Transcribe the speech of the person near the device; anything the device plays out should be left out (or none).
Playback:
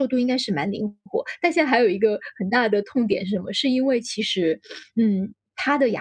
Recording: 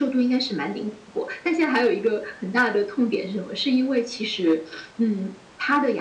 none